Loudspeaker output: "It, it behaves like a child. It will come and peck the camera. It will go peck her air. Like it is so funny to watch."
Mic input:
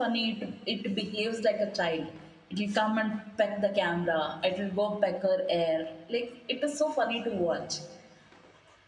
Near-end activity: none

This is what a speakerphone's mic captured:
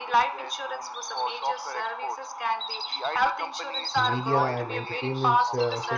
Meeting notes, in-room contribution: present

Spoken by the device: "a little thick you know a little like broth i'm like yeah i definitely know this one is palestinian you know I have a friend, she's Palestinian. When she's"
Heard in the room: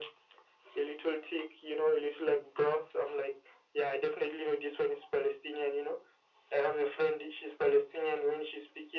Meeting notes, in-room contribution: none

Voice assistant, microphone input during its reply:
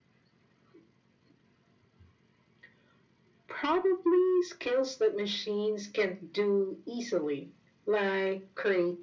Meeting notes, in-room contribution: none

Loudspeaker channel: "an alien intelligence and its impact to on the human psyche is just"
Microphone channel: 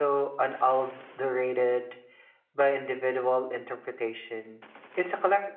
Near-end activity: present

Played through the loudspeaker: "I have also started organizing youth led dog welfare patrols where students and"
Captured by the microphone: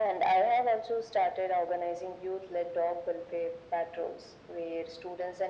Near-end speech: none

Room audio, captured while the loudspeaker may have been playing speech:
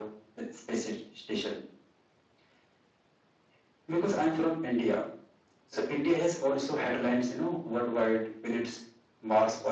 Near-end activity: none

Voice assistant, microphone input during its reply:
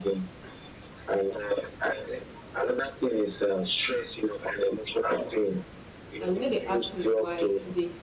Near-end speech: present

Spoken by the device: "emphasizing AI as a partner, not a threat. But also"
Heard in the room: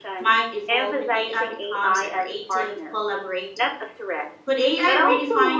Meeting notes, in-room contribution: present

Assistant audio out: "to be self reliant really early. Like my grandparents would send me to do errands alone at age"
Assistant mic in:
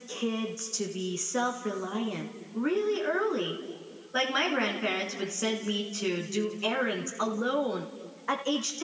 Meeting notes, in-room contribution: none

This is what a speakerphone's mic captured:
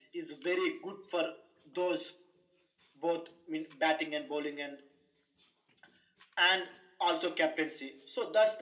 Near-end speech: none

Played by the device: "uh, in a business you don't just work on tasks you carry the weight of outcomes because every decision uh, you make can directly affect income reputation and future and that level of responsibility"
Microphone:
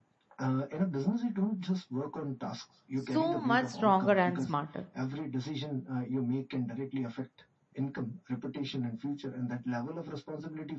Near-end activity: present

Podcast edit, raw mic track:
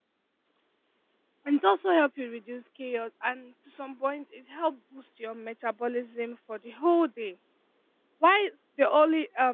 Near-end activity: present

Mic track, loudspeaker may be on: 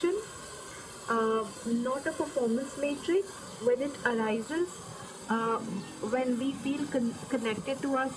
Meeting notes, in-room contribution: none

